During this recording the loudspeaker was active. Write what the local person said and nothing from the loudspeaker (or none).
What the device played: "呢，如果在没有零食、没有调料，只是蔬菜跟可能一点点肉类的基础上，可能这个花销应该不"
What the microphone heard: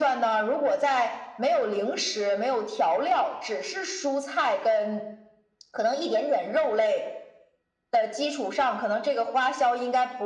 none